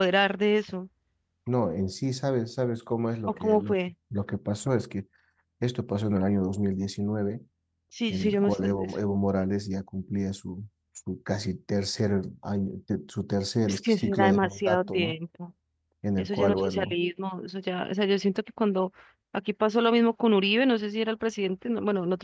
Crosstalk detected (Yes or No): Yes